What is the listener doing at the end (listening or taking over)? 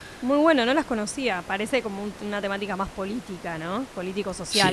taking over